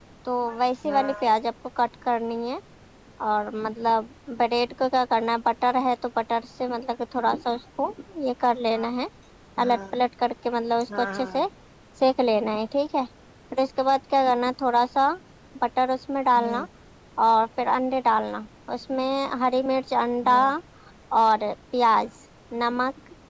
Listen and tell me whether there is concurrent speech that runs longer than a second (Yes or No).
No